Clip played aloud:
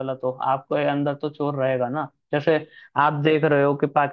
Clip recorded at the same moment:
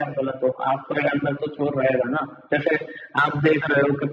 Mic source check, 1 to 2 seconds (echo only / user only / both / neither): echo only